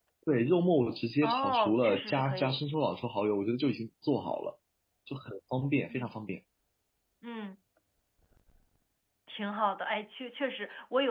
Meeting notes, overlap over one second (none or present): present